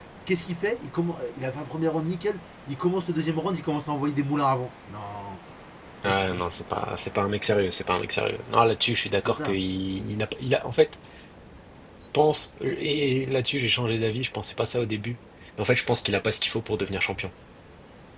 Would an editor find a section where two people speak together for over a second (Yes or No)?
No